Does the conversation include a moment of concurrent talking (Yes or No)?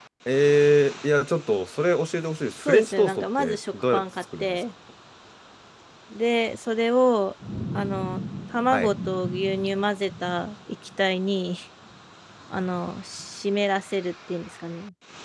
Yes